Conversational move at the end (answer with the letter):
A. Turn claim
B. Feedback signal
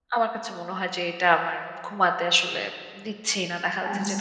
B